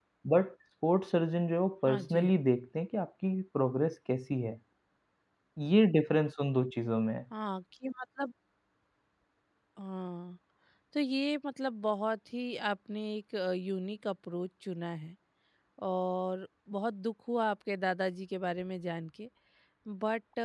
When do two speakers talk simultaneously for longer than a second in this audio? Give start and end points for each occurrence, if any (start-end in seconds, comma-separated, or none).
none